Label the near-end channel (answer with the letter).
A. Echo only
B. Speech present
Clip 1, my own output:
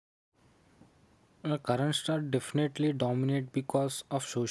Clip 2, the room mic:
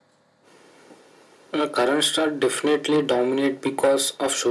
A